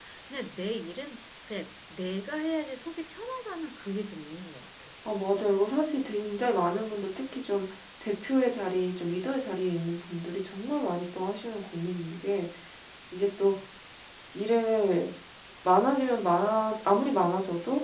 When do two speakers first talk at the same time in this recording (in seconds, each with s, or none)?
none